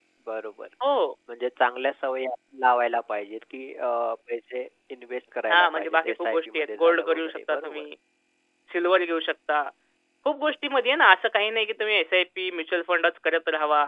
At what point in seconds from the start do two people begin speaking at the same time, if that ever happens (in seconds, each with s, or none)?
5.5 s